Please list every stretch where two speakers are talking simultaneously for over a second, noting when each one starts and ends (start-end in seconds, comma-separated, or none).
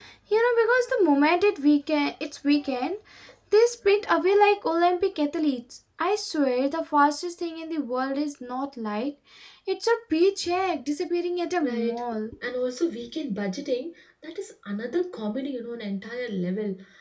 none